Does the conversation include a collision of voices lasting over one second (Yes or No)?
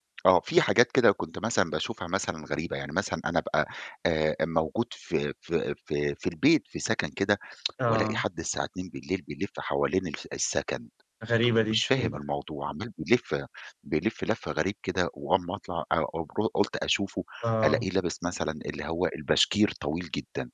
No